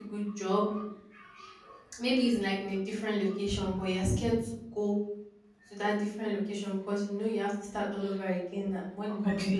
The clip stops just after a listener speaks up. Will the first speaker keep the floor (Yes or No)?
Yes